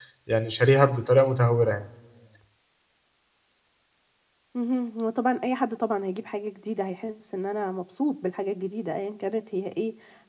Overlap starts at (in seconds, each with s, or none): none